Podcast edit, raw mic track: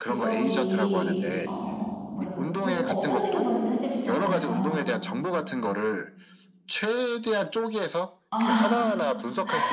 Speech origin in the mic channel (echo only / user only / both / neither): both